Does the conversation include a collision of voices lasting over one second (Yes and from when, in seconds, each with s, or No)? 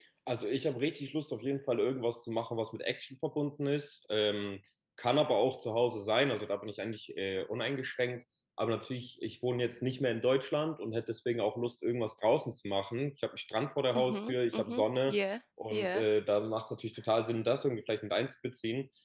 Yes, from 14.0 s